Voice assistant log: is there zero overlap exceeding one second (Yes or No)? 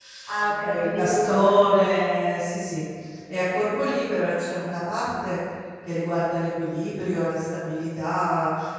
No